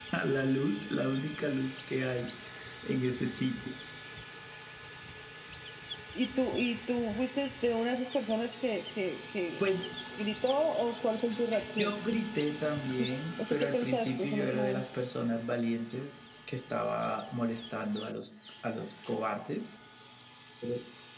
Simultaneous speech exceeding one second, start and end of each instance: 13.4-14.8

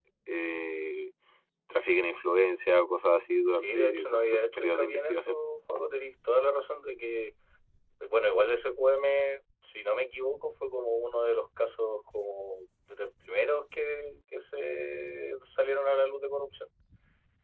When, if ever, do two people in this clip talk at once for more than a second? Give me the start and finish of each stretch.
3.5-5.4

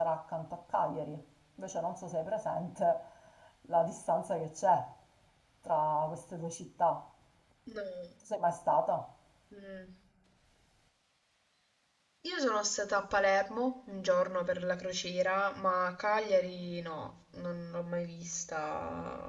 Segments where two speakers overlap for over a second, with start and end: none

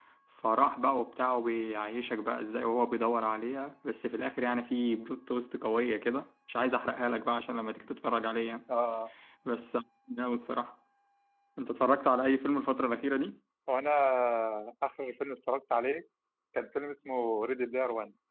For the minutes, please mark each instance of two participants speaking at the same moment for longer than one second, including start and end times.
none

